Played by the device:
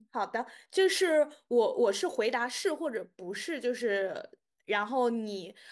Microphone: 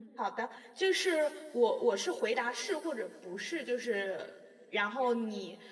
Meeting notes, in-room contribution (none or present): none